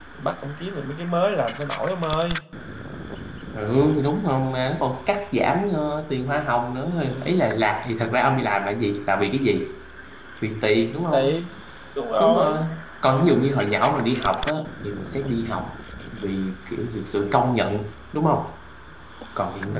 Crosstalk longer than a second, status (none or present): none